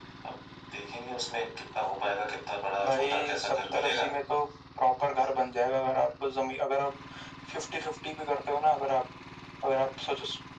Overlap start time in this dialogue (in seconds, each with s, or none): 2.8 s